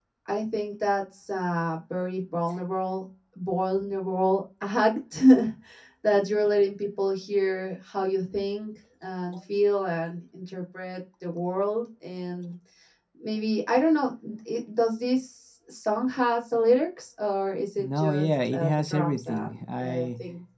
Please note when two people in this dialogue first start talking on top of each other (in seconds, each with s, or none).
17.8 s